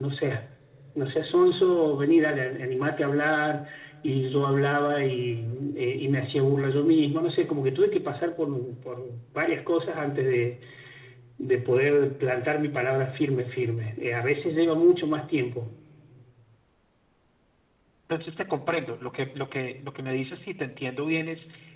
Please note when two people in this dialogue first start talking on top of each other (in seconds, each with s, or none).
none